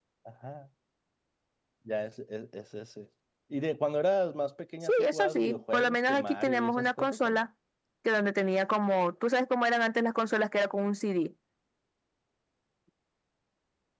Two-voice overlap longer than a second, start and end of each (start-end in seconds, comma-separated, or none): 4.8-7.4